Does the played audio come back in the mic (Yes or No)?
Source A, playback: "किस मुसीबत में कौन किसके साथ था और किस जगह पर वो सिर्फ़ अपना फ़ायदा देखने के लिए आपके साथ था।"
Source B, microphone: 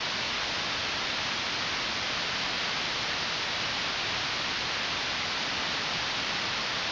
No